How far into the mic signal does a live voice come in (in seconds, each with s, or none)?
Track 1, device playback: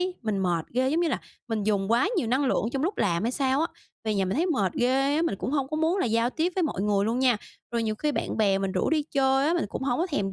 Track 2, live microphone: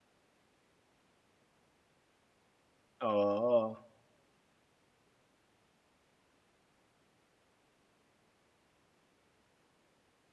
3.0 s